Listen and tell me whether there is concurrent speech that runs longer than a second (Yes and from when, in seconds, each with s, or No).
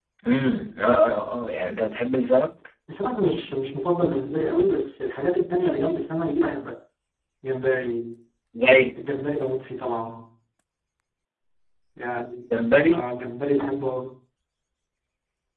No